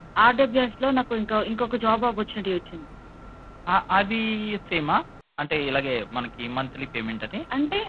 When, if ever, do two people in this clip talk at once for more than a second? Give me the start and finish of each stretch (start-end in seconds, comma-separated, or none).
none